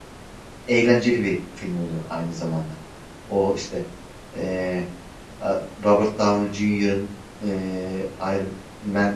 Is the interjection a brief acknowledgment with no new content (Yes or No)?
Yes